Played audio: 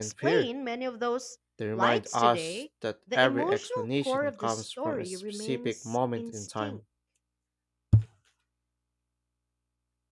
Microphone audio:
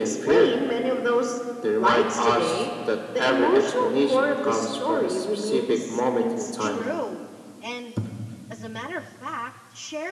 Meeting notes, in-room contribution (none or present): present